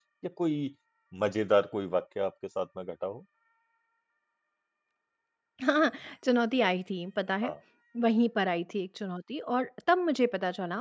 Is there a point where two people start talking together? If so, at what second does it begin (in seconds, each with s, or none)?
none